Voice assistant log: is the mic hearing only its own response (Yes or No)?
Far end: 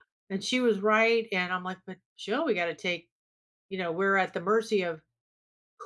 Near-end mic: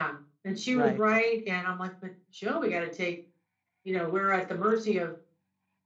No